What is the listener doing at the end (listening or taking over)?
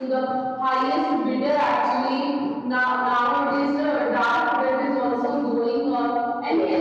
listening